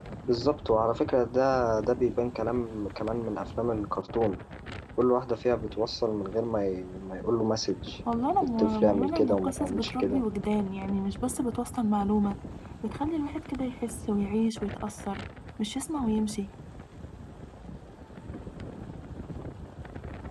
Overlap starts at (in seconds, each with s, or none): 8.6 s